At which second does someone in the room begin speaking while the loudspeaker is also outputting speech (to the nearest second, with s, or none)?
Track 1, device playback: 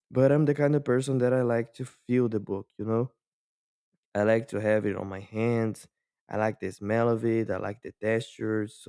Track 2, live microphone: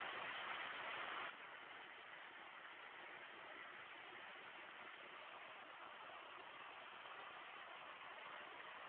none